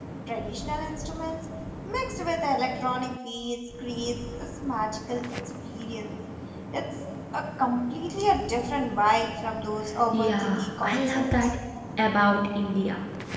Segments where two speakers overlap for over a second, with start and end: 10.1-11.5

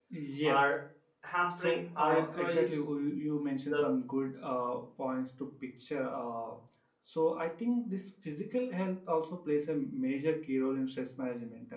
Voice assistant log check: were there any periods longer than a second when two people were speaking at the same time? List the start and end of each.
1.6-2.8

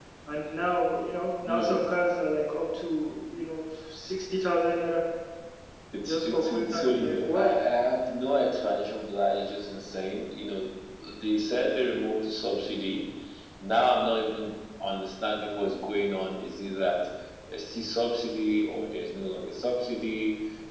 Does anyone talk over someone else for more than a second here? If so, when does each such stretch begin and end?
6.1-7.5

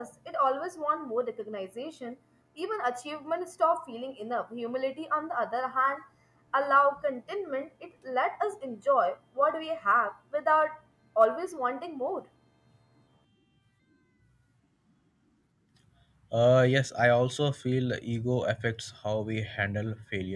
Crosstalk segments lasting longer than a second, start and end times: none

